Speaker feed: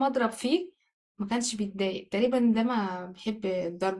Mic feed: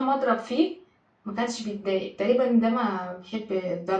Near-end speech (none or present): none